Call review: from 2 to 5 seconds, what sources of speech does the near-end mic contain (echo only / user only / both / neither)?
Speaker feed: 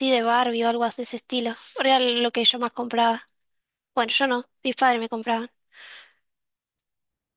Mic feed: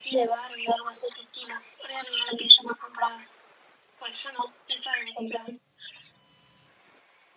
echo only